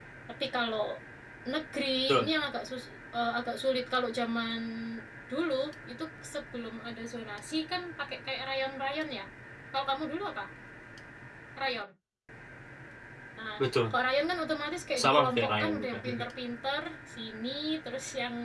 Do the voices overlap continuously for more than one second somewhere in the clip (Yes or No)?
Yes